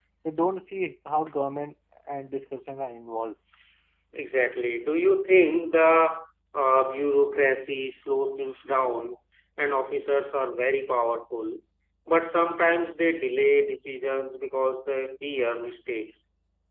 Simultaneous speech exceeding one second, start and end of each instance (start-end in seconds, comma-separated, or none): none